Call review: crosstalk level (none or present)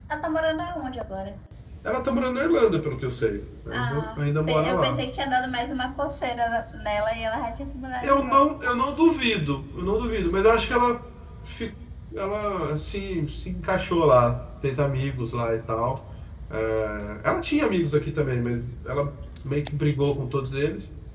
present